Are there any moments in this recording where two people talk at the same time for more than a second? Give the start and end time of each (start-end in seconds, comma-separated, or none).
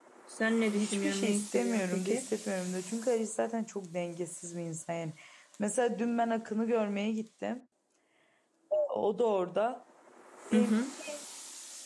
0.8-2.3